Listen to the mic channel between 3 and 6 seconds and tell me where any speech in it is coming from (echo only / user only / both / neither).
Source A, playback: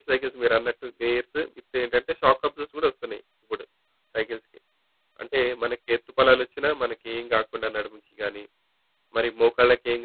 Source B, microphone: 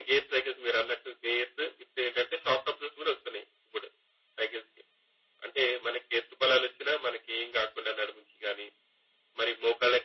echo only